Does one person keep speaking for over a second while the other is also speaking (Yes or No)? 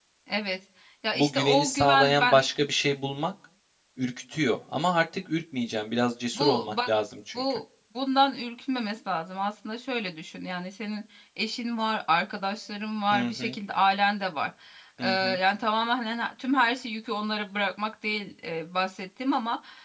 Yes